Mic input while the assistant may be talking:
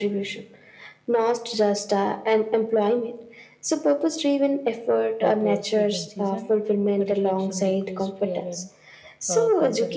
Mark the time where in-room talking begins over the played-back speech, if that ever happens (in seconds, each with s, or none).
5.2 s